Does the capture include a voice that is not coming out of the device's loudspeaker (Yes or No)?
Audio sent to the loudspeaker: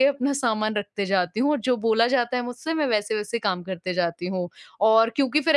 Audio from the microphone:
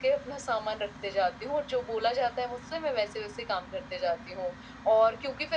No